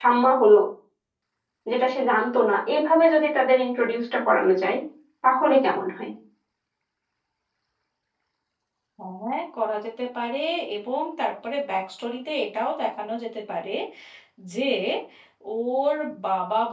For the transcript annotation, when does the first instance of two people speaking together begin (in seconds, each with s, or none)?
none